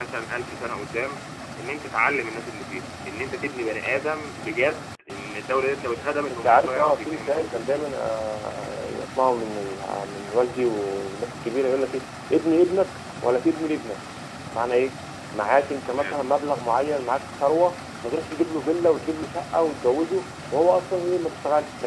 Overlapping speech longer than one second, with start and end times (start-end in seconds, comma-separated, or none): 6.3-7.8